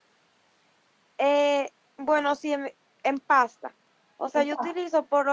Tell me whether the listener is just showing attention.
Yes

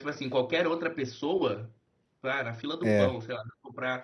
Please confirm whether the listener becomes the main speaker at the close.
No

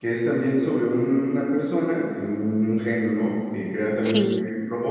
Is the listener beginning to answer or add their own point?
No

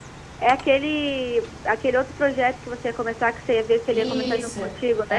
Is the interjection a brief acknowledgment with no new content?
No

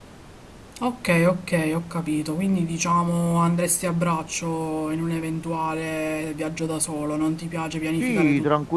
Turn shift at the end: Yes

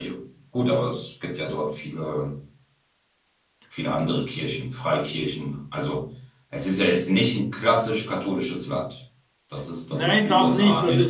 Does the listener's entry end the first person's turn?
Yes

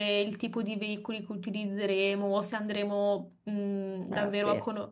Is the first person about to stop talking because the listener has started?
No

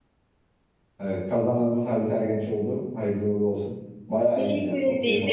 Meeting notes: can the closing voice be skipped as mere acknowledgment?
No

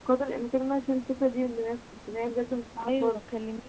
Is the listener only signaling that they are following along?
No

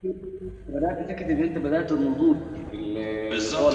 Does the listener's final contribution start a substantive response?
Yes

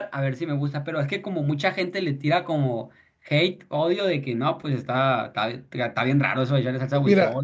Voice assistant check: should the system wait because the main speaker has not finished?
No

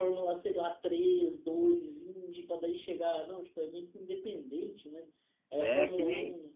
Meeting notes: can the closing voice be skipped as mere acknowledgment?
No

